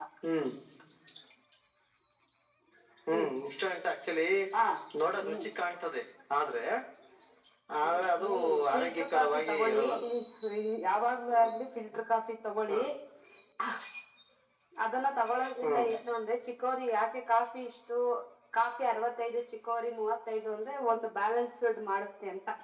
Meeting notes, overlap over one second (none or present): present